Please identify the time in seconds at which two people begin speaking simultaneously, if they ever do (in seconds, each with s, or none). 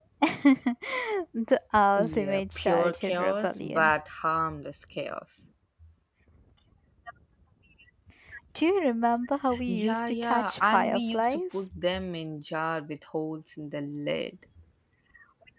2.0 s